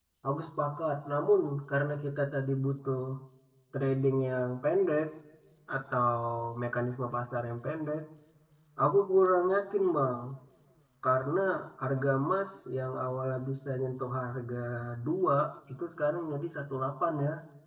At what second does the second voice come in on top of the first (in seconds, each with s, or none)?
none